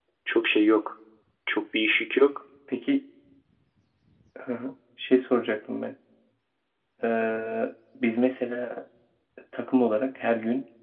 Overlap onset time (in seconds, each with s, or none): none